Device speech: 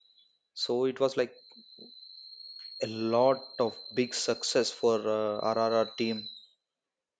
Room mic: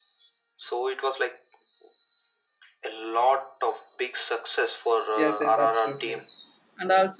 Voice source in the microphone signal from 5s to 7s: both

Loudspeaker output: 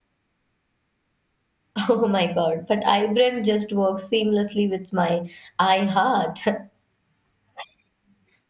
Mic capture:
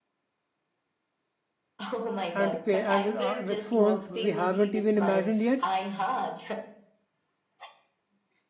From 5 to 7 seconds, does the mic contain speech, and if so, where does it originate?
both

